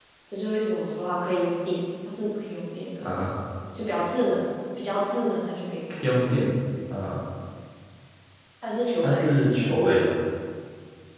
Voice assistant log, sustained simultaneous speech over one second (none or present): none